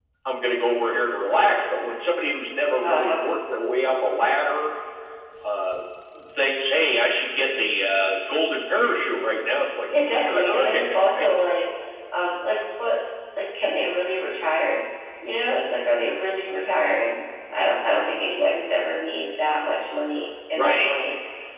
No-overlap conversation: No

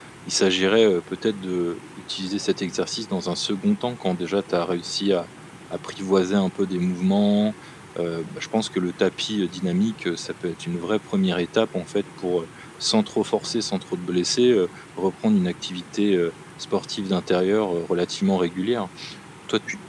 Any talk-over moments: No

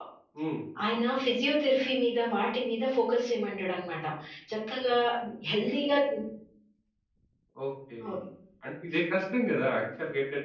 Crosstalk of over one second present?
No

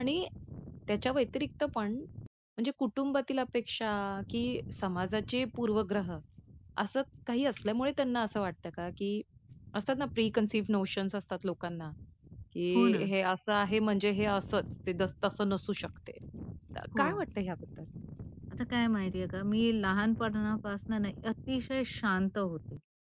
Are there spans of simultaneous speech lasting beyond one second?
No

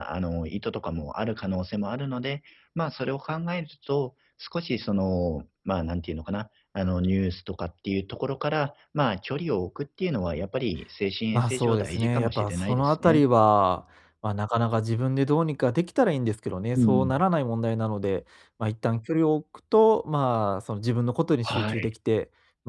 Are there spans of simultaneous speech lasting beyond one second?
Yes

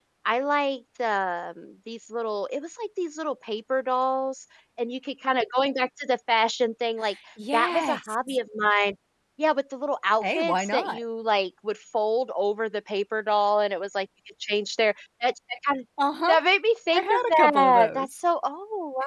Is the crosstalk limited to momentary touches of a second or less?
No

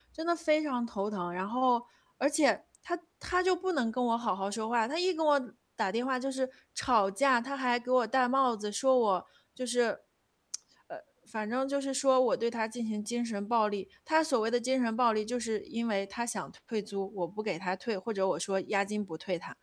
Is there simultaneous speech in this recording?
No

